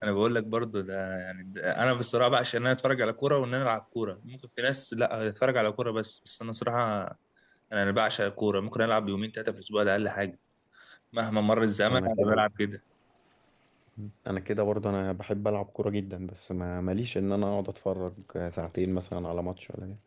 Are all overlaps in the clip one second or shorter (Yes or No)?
Yes